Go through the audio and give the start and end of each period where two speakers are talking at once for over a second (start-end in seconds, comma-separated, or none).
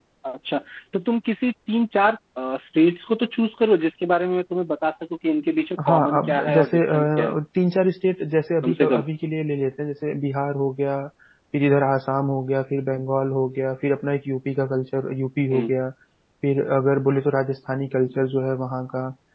5.8-7.3